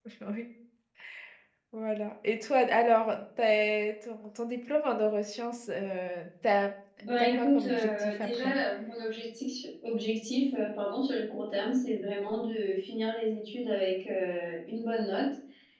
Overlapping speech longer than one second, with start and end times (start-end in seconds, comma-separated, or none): 7.2-8.5